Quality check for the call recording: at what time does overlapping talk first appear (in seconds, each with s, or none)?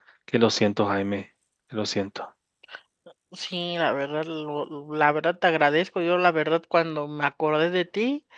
none